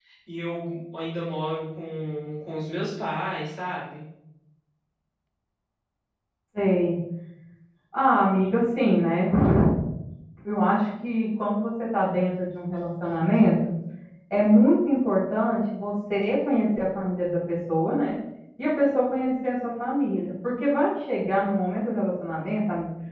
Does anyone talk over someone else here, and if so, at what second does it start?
none

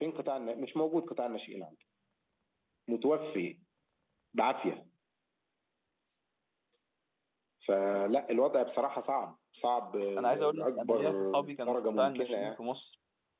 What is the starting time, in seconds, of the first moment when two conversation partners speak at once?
10.2 s

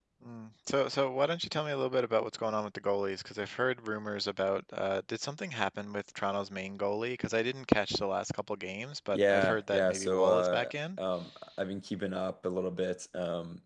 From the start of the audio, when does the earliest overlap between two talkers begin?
9.1 s

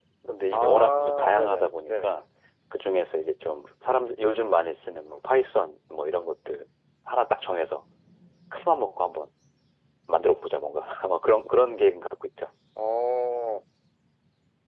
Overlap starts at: 0.5 s

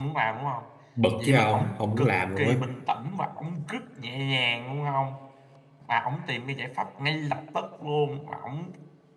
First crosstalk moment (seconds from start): 1.2 s

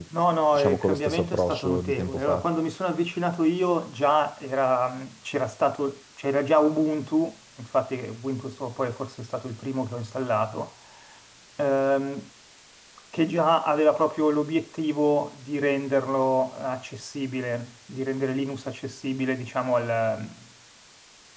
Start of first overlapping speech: 0.5 s

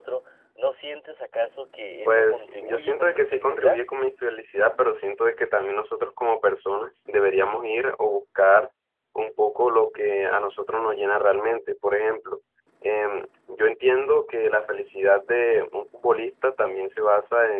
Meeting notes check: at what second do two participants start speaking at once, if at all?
2.0 s

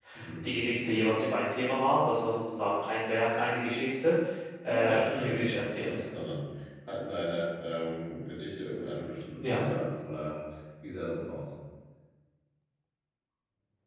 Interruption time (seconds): 4.7 s

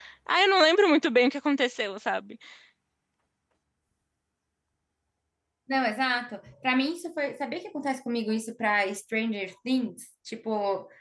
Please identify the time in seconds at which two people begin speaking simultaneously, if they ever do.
none

